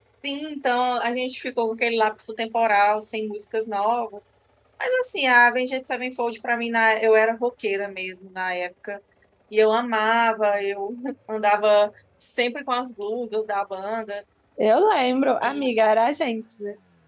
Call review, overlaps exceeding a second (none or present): none